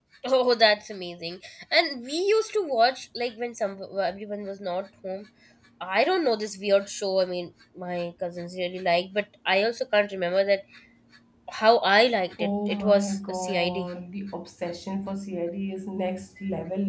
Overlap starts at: 12 s

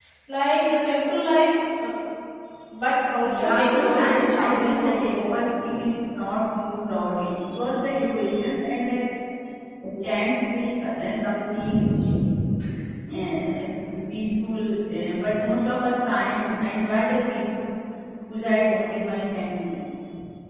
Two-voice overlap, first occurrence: 3 s

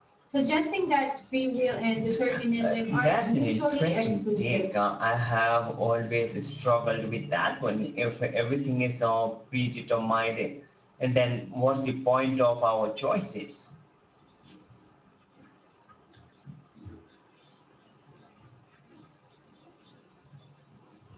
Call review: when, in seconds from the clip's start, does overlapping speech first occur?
3 s

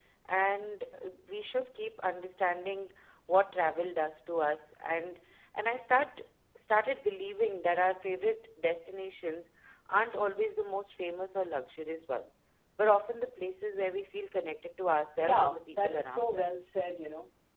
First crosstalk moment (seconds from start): 15 s

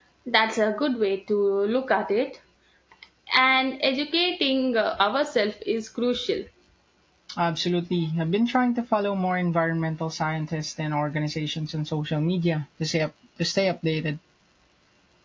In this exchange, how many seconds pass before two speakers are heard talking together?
none

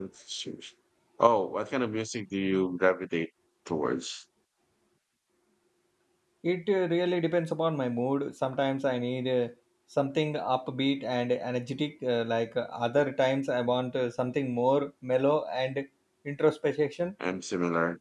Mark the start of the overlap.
none

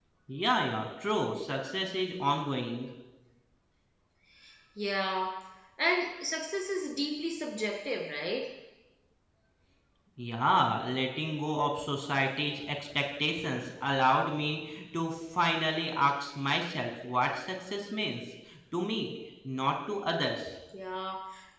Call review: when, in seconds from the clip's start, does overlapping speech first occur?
none

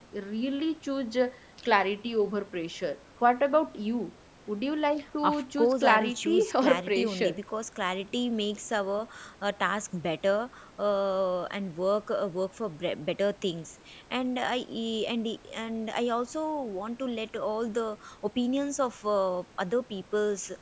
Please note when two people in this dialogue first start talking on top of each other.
5 s

